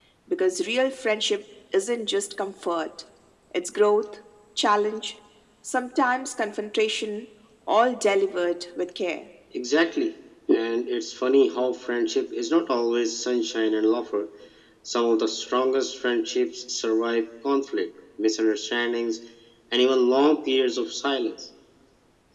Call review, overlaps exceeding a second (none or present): none